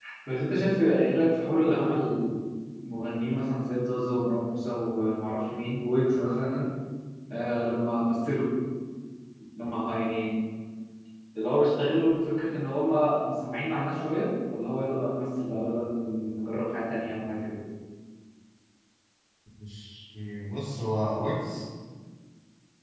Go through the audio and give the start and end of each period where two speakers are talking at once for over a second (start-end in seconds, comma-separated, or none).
none